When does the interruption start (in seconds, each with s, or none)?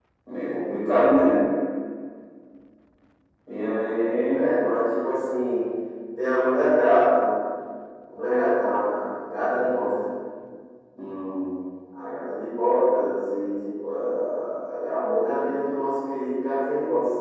none